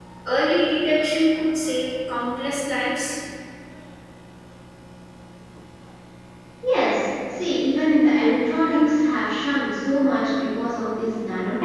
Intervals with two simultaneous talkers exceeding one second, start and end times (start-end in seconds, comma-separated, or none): none